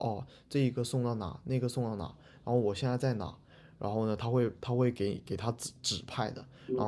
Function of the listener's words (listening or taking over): taking over